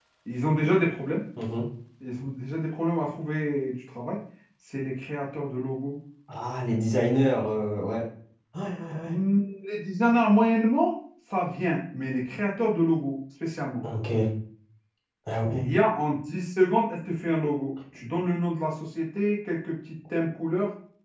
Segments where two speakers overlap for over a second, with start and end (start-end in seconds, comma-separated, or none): none